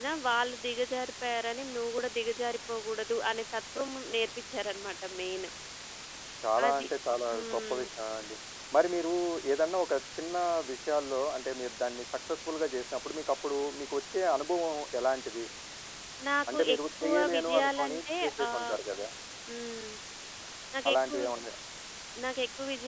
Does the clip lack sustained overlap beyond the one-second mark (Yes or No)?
No